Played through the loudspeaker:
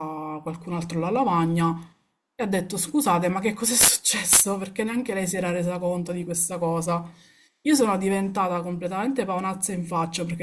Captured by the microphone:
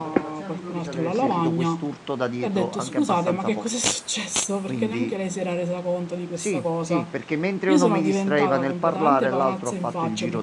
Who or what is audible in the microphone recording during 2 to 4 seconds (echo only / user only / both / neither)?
both